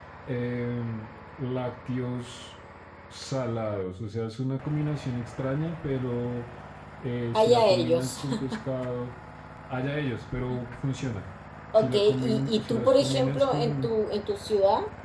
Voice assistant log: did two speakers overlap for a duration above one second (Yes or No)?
Yes